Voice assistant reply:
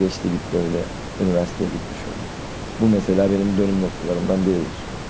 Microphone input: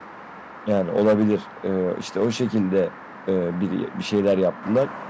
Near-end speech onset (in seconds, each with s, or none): 0.6 s